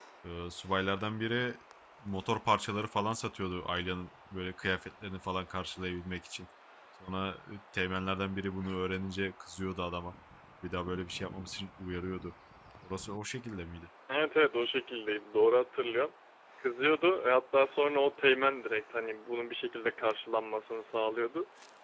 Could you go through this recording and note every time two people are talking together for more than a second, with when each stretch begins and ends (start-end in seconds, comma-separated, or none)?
none